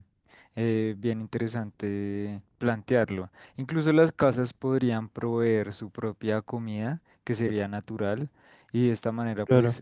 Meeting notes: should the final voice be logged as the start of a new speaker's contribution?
No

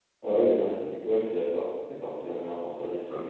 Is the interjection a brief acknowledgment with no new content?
No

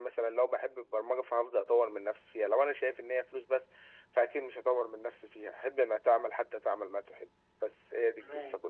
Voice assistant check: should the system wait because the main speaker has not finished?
No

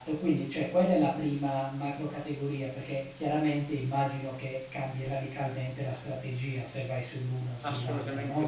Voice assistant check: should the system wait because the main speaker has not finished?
No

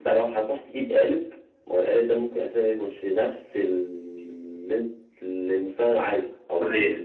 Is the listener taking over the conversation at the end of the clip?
Yes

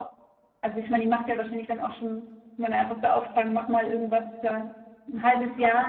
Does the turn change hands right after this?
No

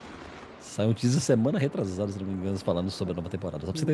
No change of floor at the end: No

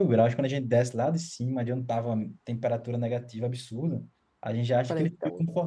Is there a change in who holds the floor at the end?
No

